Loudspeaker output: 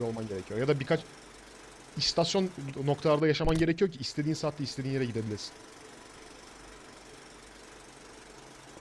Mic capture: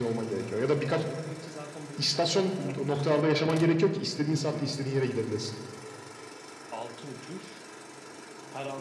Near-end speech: present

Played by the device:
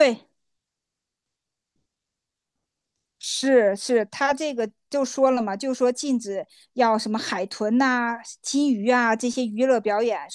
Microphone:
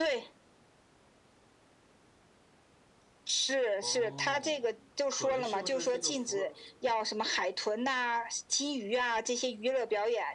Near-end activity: present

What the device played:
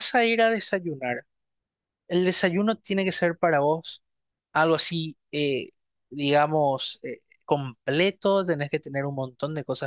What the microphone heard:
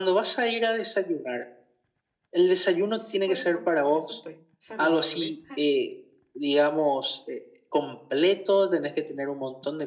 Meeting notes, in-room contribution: present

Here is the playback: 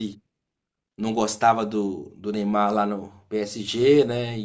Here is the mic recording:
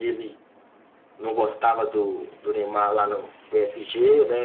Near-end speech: none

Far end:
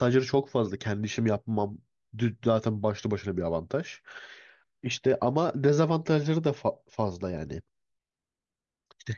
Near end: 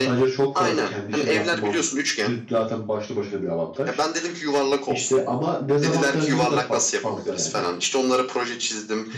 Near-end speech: present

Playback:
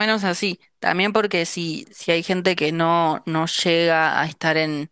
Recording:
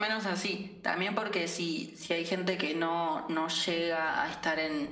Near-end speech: none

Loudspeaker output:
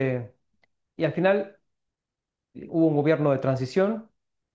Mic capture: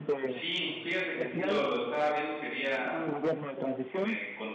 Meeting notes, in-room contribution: present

